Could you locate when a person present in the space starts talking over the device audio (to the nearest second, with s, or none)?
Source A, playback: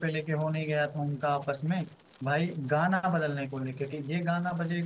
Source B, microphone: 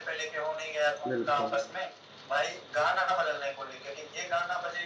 1 s